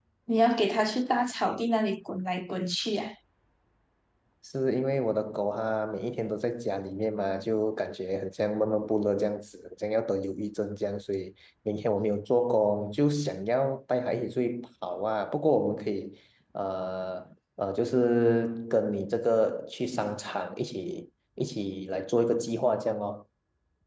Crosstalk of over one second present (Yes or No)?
No